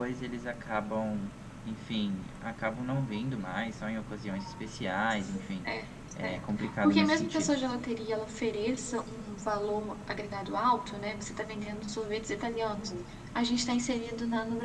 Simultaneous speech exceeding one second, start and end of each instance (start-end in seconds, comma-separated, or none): 6.2-7.6